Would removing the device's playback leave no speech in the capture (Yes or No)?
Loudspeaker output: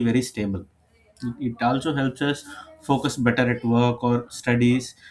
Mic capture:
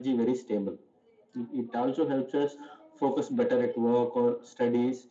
Yes